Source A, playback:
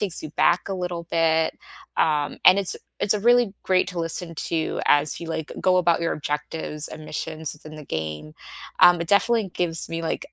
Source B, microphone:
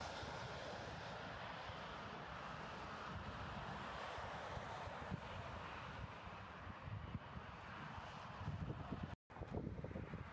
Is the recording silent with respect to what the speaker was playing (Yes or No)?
Yes